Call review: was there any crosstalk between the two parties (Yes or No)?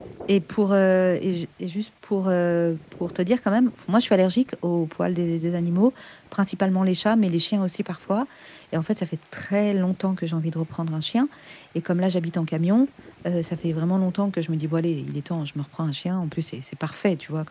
No